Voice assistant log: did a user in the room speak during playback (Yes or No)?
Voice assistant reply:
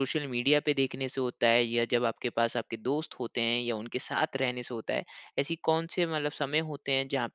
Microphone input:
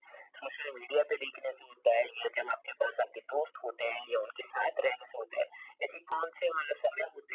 No